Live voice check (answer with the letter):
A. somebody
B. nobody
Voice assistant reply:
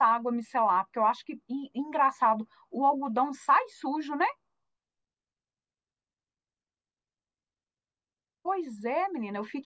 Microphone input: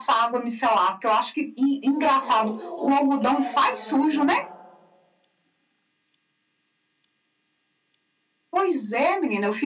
A